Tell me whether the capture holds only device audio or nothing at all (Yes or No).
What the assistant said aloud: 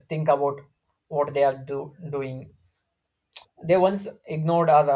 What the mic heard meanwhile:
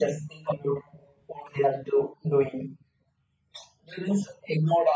Yes